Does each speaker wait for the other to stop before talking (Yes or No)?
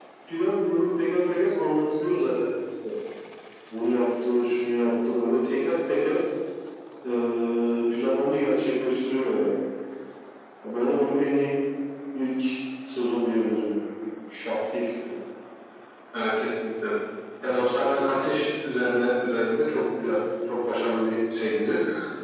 Yes